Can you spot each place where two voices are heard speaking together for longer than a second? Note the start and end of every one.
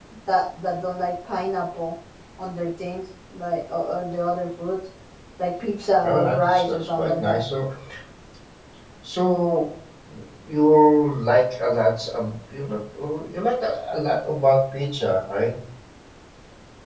6.0-7.4

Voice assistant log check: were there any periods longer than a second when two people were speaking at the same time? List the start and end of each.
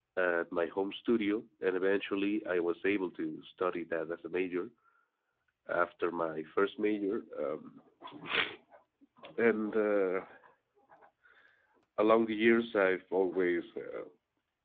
none

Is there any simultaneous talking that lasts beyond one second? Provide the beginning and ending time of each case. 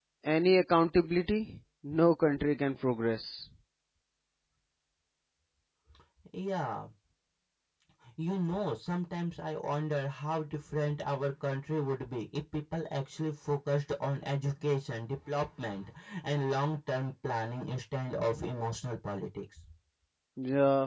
none

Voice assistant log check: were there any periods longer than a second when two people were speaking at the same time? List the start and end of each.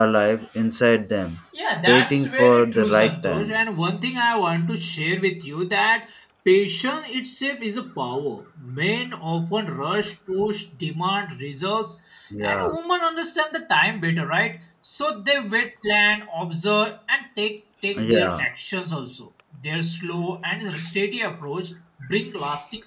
1.9-3.5

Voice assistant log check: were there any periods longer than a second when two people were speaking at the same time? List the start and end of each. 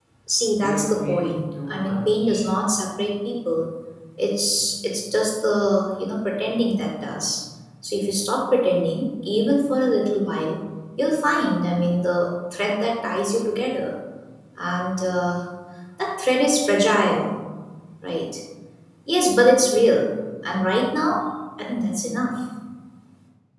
0.6-2.5

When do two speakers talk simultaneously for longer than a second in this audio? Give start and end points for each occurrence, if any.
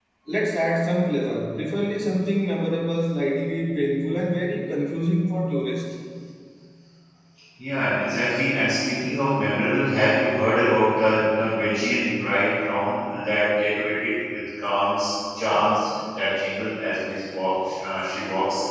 none

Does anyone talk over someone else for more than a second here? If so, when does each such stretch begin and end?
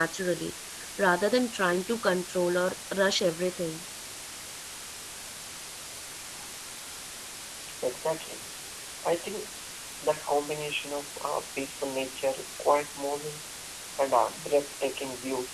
none

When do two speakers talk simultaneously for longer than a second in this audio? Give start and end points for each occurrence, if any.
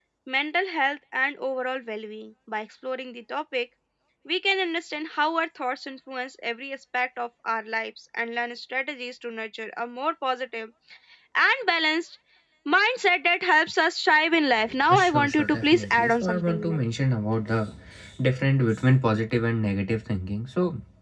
14.9-16.8

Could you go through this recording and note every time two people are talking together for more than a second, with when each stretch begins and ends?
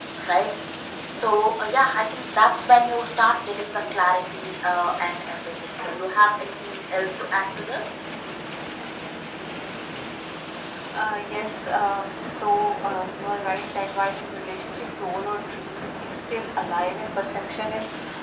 none

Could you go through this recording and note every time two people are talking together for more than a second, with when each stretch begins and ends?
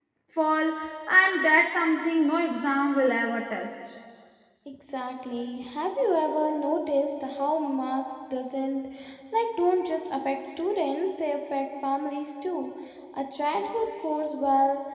none

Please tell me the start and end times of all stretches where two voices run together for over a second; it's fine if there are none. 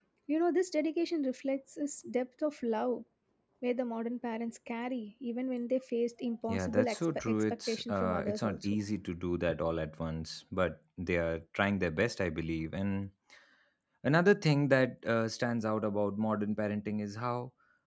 6.5-8.7

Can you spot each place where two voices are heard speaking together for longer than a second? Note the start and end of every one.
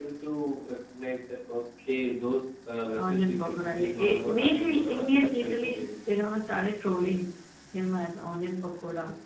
3.0-5.8

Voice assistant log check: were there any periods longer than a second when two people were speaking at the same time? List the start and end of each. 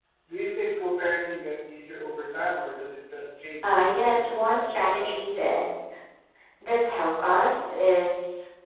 3.6-5.3

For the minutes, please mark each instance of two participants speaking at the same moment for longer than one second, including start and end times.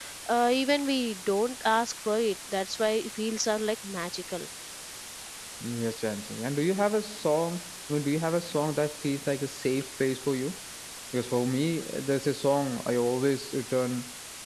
none

